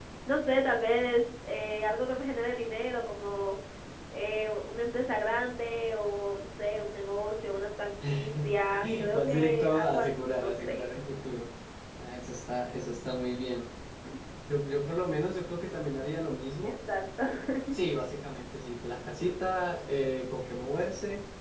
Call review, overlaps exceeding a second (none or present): present